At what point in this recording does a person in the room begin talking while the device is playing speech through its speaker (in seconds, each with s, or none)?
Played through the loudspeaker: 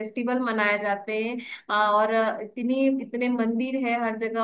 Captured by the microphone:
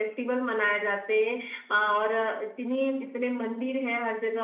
none